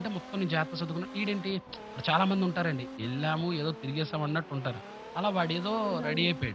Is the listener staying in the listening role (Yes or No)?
No